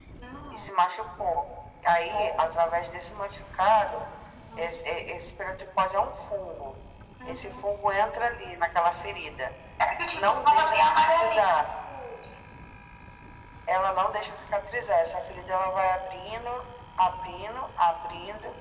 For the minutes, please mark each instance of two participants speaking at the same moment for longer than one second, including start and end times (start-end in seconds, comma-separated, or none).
10.1-11.7